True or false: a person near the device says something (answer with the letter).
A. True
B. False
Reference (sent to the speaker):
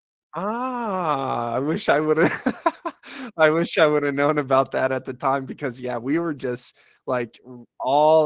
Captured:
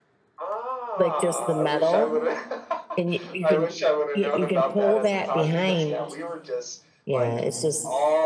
A